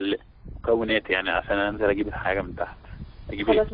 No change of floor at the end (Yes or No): No